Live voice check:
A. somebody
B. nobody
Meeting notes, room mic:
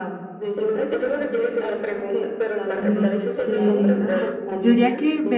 A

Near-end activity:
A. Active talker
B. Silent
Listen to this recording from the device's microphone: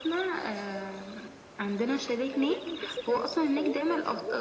A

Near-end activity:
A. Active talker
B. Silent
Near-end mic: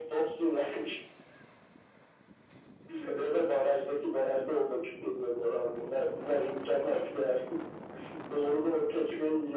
B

